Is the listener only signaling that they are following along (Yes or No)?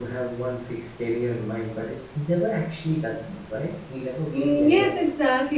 No